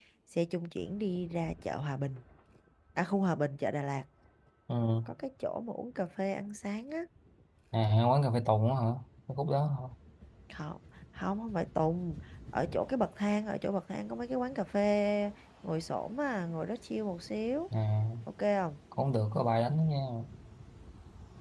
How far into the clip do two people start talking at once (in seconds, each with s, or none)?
none